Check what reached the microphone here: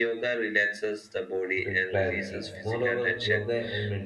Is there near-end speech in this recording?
Yes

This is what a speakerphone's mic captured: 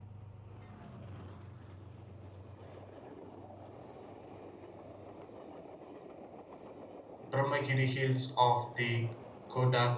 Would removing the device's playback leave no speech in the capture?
No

